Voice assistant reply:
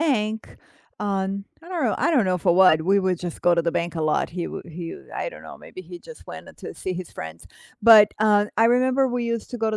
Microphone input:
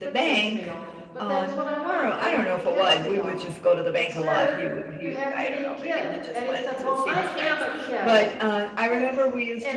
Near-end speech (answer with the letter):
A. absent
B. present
B